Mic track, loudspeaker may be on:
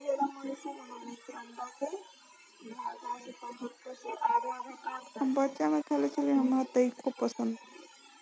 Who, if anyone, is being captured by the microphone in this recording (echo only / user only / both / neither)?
both